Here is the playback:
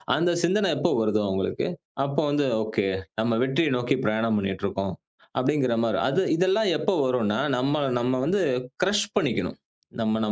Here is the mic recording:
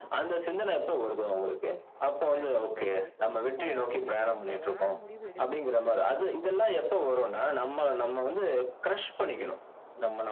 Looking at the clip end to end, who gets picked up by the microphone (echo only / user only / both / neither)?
both